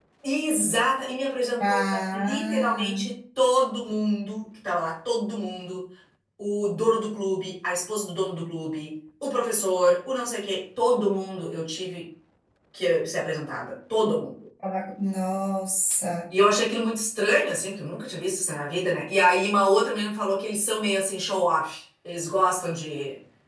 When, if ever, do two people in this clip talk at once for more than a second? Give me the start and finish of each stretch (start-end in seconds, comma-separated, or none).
1.6-3.0